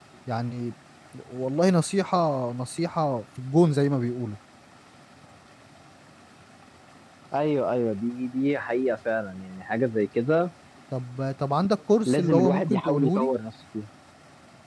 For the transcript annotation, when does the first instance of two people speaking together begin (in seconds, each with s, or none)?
12.1 s